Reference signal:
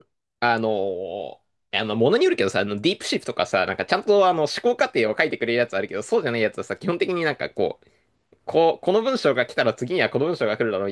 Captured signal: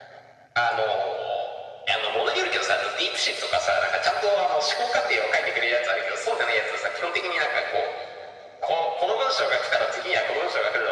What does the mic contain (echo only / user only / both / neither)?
echo only